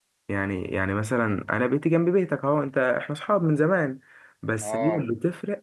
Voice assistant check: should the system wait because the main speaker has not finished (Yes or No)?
Yes